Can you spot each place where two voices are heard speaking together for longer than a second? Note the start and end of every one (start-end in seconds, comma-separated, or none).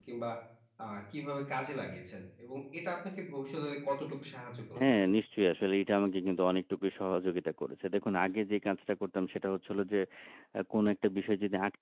none